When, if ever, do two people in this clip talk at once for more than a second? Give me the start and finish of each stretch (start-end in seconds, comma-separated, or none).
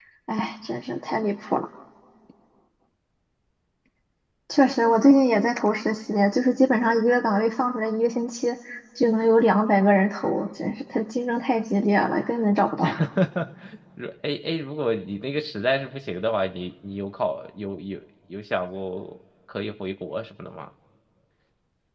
none